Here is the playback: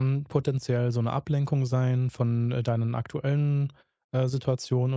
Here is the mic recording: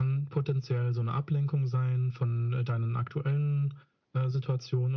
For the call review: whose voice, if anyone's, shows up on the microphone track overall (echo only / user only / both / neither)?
echo only